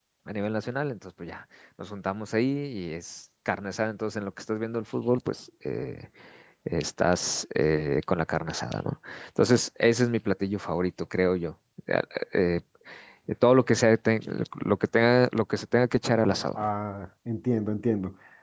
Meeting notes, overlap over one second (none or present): none